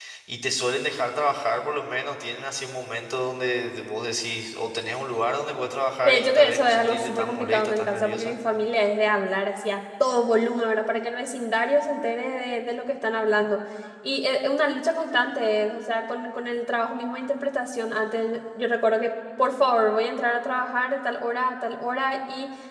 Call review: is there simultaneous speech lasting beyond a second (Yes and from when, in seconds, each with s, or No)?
Yes, from 6.0 s